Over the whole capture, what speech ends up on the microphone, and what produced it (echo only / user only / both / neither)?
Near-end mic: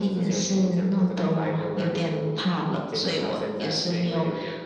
echo only